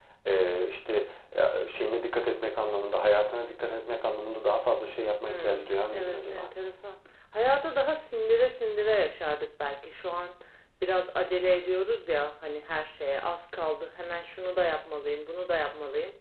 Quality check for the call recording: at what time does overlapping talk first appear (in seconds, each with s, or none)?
5.2 s